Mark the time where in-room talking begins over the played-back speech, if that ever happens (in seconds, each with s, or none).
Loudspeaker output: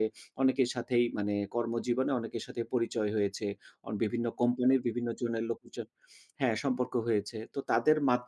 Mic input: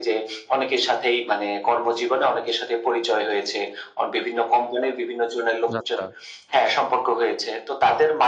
5.7 s